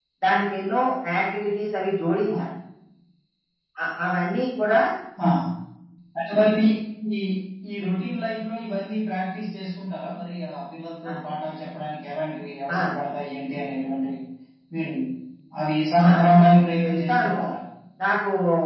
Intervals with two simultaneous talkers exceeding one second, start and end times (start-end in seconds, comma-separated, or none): 16.1-17.4